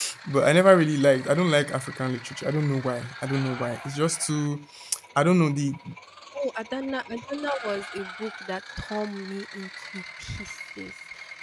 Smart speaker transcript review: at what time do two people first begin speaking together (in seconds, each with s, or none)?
none